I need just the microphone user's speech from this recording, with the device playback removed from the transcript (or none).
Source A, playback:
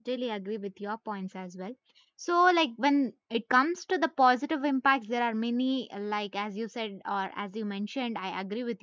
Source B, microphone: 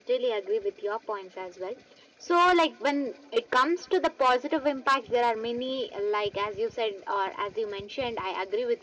none